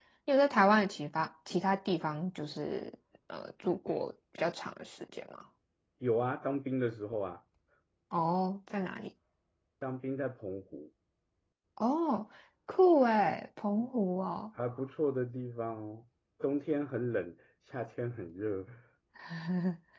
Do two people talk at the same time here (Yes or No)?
No